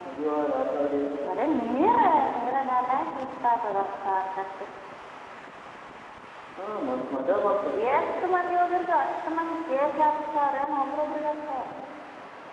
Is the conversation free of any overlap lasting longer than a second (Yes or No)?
Yes